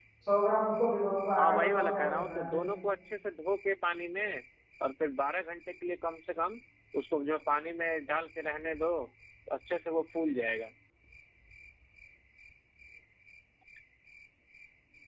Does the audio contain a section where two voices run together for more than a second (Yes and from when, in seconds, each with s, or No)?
Yes, from 1.4 s